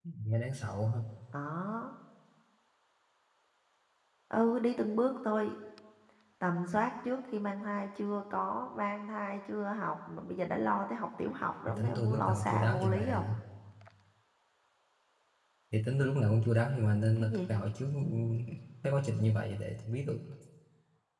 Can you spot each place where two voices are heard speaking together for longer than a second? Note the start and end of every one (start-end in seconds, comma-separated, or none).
11.7-13.3